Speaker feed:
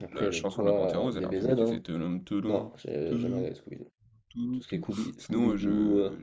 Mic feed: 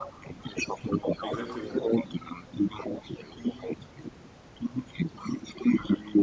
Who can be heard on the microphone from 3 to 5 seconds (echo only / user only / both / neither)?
echo only